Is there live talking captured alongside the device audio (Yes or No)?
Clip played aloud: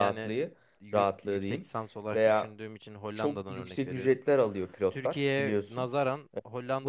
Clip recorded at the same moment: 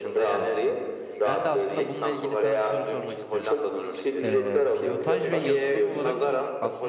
Yes